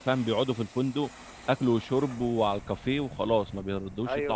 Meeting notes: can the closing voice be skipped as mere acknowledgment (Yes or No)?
No